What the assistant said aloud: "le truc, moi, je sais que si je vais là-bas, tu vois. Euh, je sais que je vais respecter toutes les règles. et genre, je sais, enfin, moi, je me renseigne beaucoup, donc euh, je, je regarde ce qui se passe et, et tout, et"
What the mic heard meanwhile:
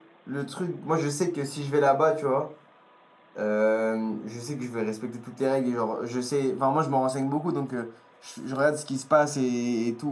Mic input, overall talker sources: echo only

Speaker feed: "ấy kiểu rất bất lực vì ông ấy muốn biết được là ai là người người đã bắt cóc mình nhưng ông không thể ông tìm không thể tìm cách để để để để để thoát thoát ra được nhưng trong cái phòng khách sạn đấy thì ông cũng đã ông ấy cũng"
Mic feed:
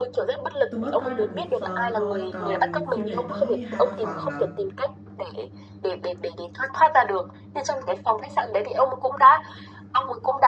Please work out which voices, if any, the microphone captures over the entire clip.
both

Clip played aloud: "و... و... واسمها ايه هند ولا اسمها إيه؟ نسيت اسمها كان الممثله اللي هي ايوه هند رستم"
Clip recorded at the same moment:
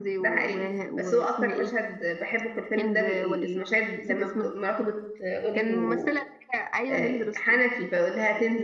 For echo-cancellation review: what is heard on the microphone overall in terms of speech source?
both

